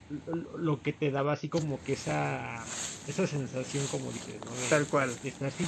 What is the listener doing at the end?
listening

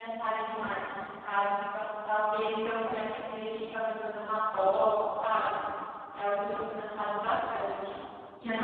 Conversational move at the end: taking over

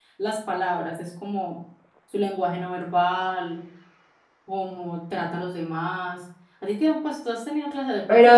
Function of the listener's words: taking over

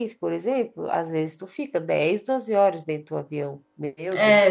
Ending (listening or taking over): taking over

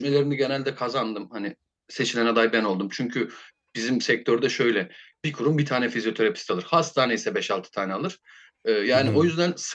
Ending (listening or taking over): listening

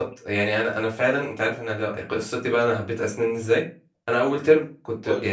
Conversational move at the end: listening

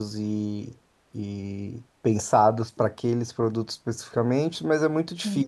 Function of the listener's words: listening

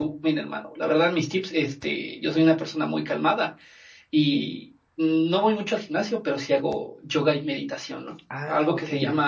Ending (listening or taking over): listening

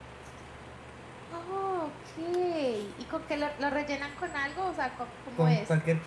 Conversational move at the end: taking over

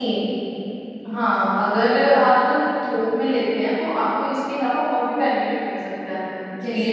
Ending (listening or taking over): listening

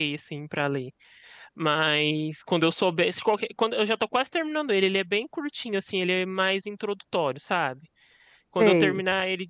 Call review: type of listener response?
listening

